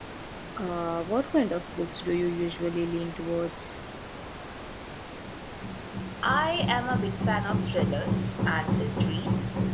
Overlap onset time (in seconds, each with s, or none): none